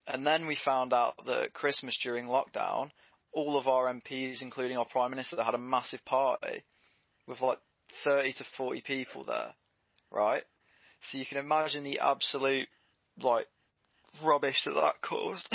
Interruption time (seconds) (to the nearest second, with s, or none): none